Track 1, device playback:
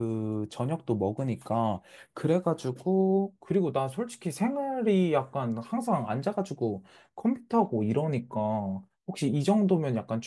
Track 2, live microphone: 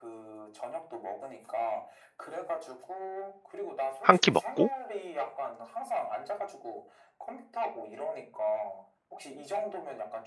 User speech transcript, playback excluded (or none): 한 끼 먹고